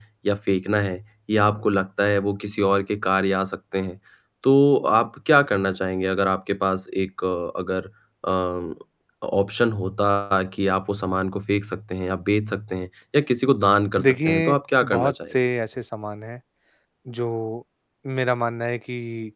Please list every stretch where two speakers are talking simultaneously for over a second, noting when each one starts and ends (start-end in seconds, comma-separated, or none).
14.0-15.4